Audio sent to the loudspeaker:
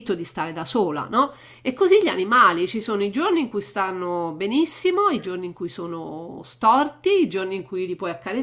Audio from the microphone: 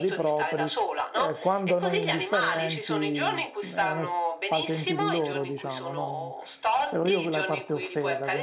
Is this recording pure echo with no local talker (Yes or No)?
No